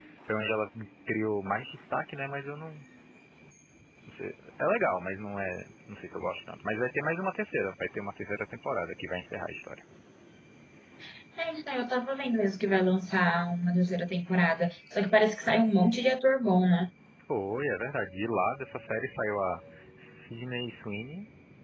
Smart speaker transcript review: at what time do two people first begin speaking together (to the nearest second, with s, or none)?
none